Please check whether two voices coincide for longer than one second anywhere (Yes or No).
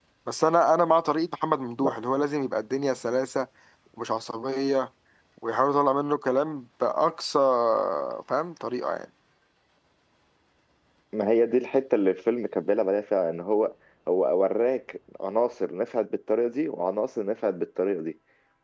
No